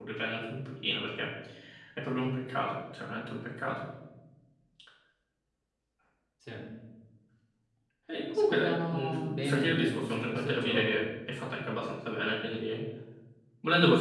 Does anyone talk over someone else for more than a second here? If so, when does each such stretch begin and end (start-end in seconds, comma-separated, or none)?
8.5-11.0